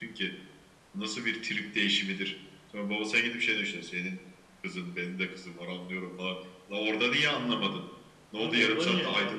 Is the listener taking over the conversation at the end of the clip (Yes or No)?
Yes